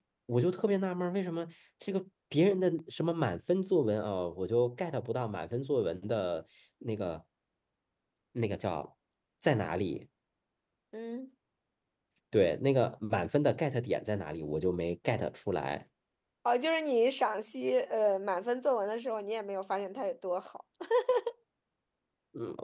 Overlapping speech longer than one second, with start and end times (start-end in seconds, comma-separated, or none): none